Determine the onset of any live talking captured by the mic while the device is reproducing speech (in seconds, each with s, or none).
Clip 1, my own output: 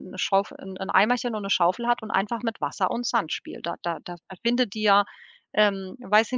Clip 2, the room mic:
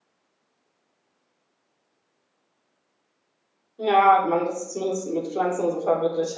3.8 s